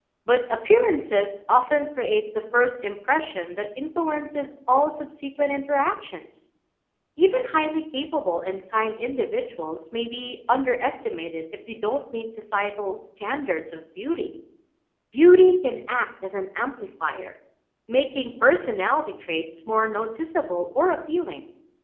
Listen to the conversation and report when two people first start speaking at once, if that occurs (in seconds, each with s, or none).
none